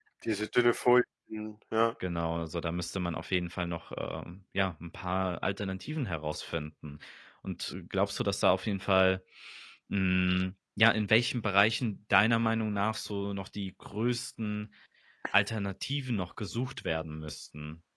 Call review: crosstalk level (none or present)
none